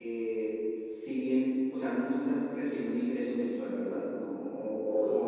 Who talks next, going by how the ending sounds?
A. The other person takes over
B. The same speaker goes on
B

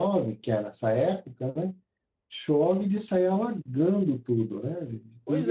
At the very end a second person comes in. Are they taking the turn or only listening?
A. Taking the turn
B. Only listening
A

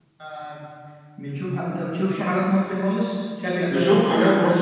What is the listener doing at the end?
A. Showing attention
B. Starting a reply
B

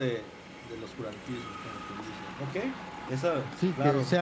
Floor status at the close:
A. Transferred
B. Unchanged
A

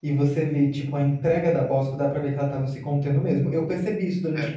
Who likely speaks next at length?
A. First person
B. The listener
A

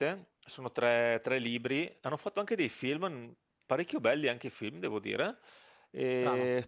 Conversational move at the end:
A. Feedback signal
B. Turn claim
A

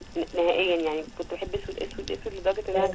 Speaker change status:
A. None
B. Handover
B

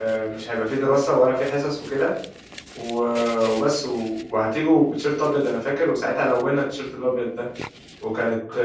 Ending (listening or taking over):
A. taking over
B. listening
A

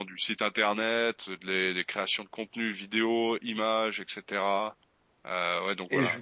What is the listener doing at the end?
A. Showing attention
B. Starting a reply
A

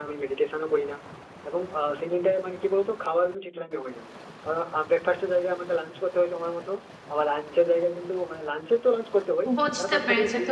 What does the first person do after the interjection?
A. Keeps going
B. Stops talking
B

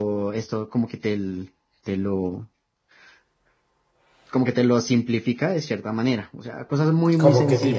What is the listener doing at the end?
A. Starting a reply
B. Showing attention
A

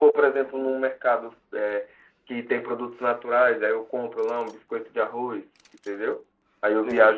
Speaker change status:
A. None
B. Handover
A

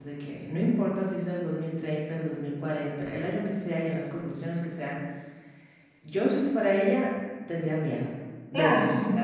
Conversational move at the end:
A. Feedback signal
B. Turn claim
B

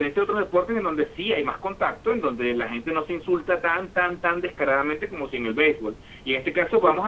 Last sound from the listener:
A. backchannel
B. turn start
A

